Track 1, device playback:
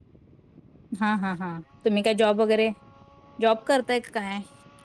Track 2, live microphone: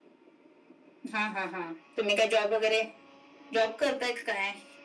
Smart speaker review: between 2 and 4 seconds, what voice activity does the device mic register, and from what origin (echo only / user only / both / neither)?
echo only